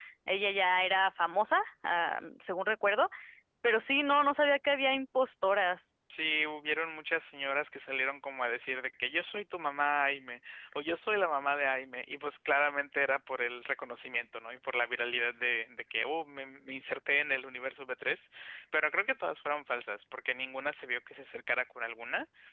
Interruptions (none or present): none